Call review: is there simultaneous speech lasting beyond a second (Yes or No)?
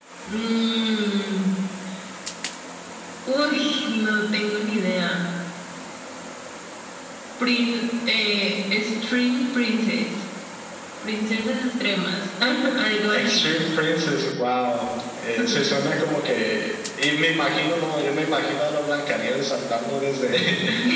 No